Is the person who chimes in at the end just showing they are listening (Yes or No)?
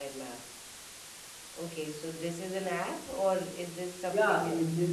No